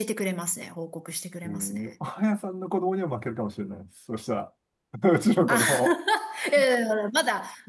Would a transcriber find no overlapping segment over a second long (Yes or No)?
Yes